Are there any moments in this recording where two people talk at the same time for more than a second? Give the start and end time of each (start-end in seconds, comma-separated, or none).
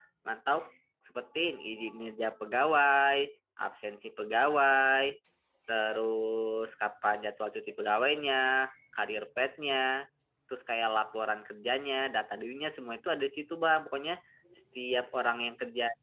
none